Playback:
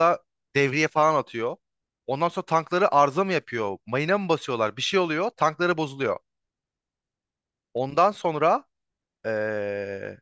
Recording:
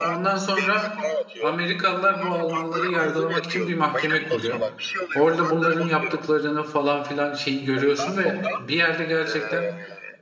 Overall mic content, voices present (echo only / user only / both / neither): both